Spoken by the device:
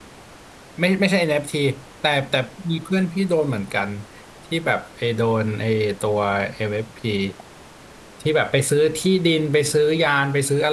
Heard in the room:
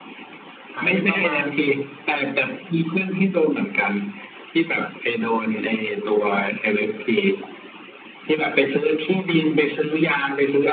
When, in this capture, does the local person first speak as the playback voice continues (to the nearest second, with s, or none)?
1 s